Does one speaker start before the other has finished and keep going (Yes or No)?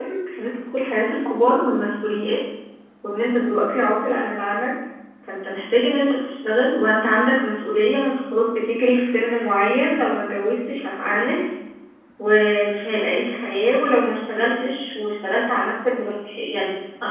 No